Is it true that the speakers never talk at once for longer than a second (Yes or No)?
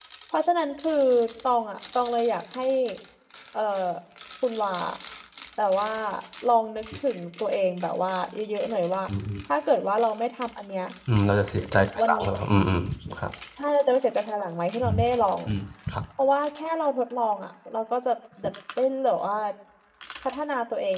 Yes